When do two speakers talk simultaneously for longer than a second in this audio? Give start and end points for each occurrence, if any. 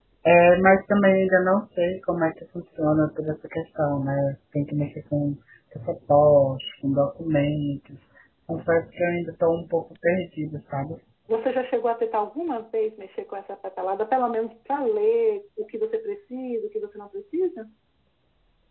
none

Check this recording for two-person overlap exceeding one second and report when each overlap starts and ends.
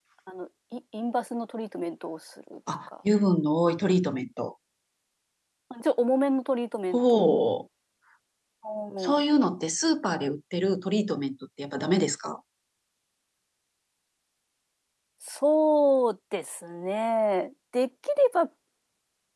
none

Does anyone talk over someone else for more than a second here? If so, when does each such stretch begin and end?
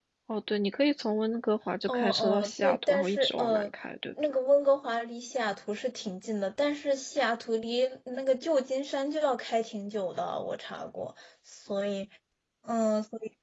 1.9-3.7

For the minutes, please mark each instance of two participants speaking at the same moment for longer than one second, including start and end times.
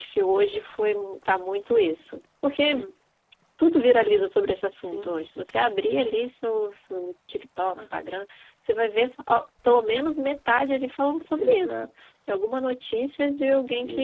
none

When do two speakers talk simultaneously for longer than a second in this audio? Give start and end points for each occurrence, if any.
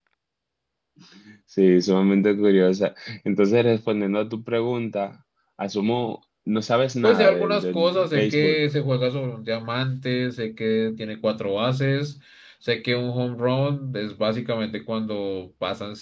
7.0-8.6

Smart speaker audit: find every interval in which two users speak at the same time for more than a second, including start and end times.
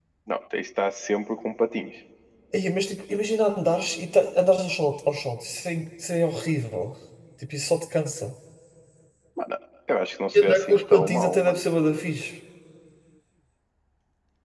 10.3-11.6

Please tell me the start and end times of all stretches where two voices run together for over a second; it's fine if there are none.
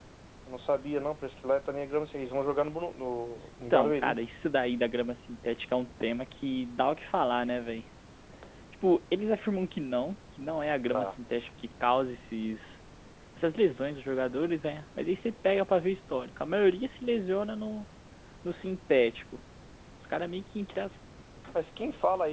none

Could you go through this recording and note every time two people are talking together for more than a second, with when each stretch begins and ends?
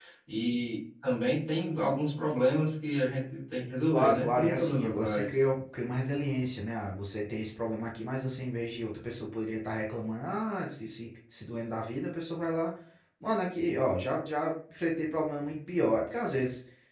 3.9-5.4

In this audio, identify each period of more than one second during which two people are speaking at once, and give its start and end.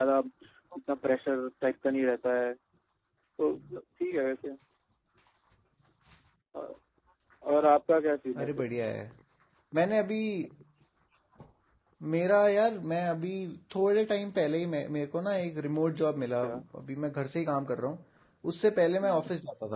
none

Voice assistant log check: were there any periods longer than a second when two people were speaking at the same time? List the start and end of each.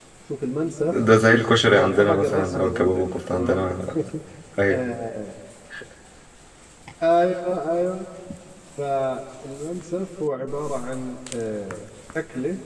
1.7-3.7

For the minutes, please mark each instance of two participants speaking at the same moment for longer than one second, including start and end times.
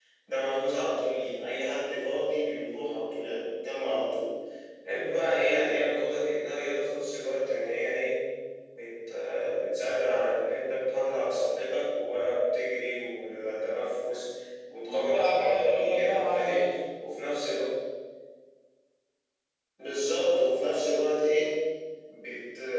14.9-16.7

